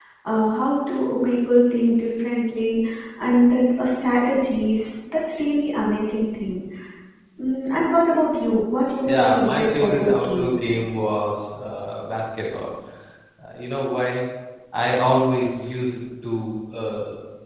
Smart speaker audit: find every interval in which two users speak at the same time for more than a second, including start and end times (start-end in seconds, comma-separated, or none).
9.0-10.5